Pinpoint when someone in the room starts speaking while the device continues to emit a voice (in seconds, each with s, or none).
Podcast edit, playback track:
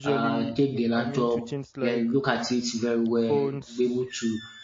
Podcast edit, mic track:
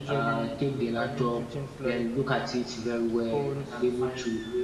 3.5 s